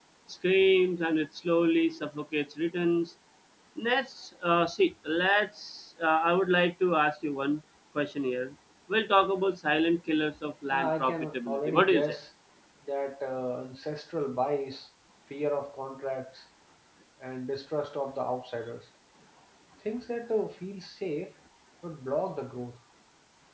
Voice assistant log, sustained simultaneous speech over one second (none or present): present